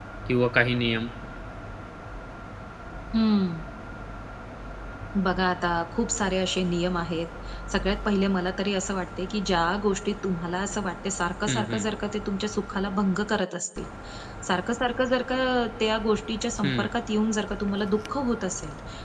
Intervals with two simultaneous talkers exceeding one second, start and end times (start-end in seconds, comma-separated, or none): none